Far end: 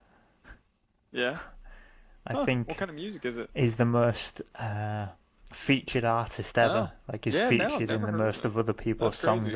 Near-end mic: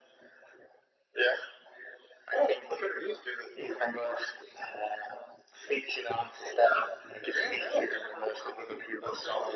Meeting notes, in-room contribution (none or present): none